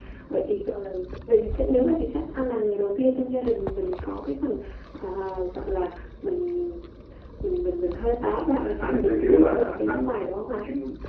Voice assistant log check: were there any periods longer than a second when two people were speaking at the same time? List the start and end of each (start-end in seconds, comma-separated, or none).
8.2-10.2